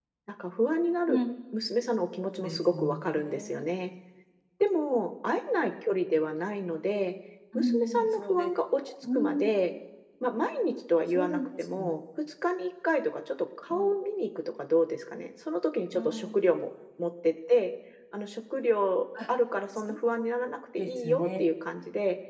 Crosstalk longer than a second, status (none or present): present